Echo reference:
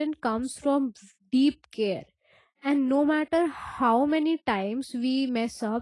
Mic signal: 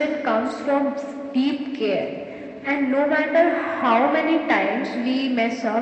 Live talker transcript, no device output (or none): none